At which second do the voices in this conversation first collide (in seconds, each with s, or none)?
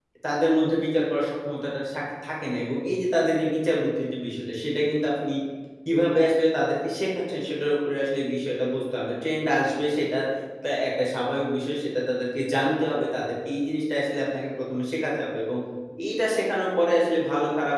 none